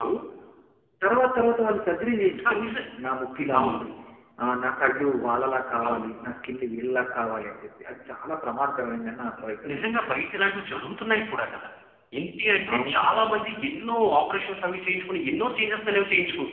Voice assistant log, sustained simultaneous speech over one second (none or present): none